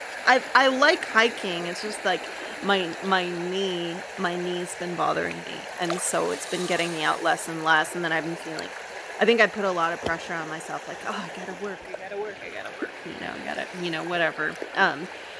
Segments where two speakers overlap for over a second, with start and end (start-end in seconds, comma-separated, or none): none